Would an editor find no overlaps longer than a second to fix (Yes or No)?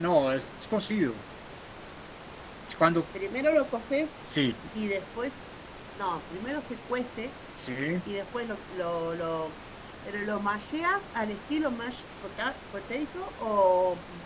Yes